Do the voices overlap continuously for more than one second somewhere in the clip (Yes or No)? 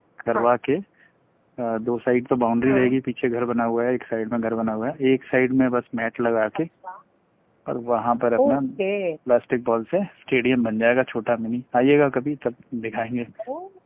No